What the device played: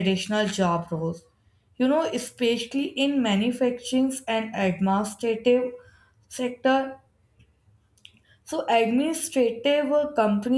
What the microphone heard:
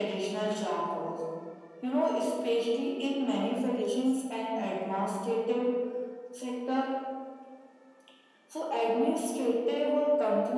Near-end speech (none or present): present